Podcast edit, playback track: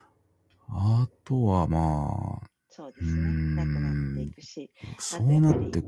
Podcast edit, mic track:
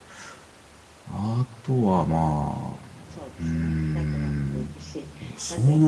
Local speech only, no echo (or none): none